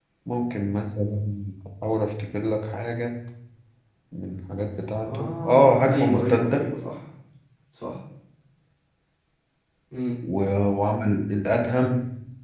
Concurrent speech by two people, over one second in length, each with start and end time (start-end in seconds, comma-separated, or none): 5.0-6.7